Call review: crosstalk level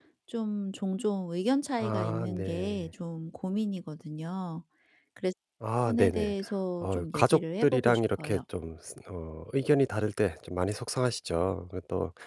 present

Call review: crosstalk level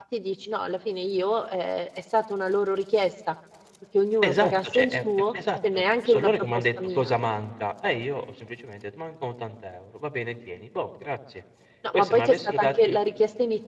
present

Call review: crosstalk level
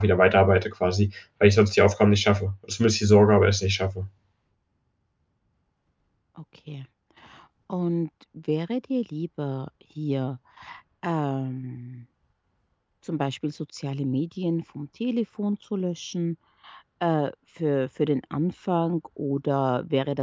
none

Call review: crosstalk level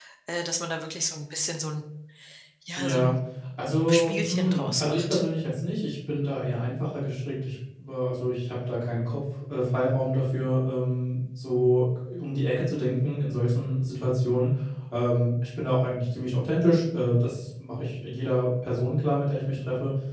present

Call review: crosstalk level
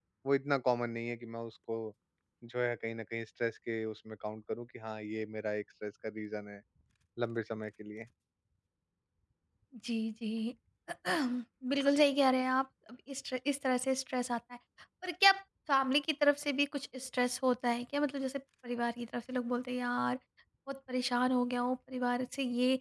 none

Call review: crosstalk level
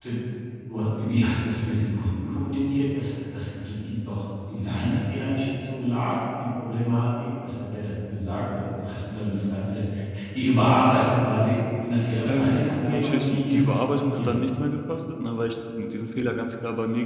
present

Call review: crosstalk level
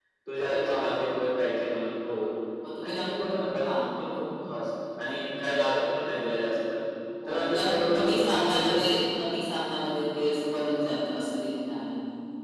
present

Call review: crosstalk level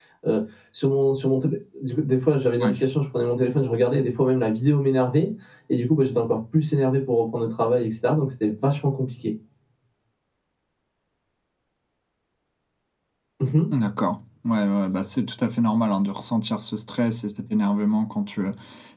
none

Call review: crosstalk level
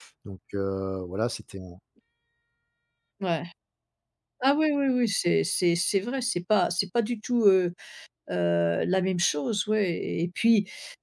none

